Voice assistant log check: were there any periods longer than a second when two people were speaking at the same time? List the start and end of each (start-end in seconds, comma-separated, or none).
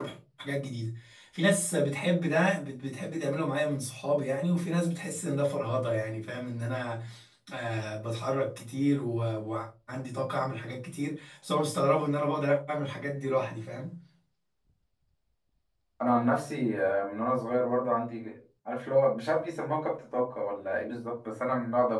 none